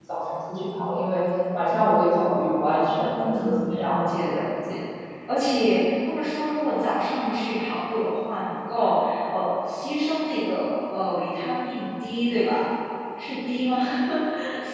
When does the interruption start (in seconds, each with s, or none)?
2.9 s